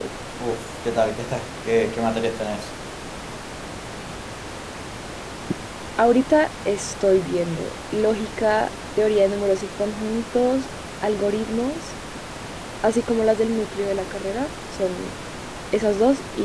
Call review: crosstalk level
none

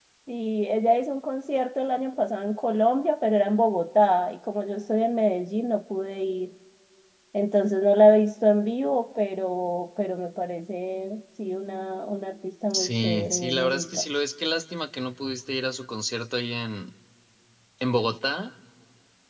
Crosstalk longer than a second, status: present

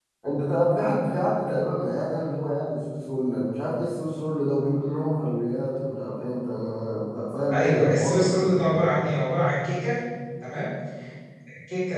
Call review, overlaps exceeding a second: present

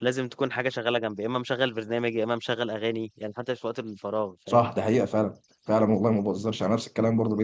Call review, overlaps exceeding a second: none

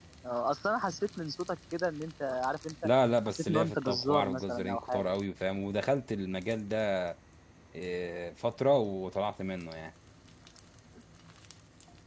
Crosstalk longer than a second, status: present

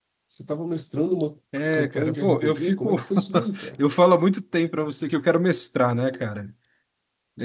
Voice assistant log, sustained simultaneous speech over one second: present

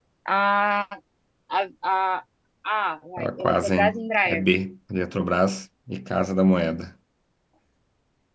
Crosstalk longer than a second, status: present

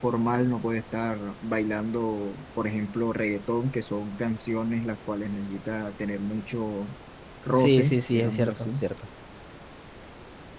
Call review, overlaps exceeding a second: present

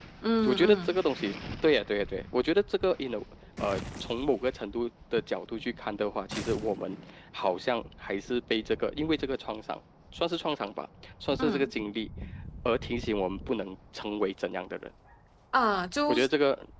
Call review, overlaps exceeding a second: none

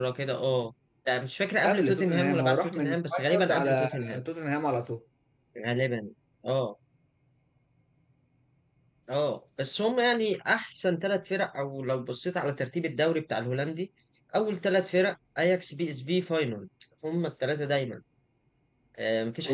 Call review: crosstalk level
present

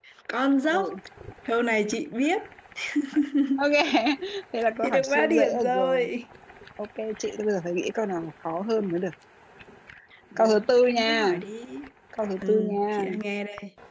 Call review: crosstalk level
present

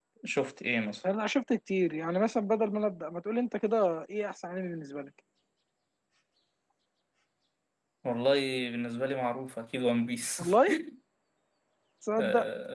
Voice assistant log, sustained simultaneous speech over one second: none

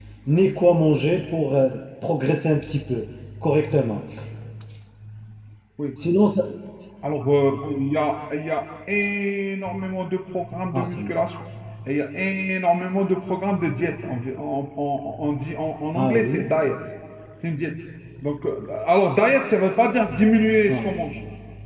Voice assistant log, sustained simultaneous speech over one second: none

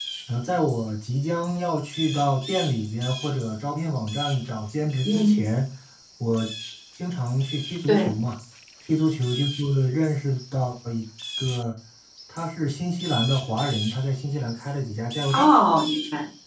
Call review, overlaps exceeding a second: none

